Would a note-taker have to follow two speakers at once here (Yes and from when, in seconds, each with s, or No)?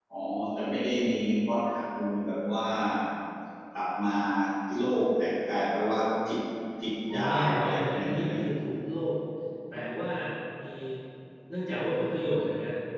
Yes, from 7.1 s